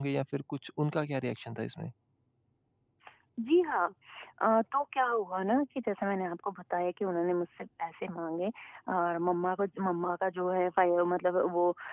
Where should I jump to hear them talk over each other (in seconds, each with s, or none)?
none